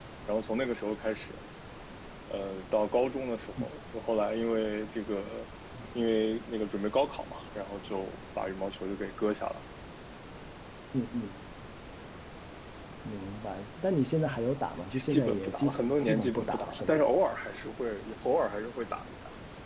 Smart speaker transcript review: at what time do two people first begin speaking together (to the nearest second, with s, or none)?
15 s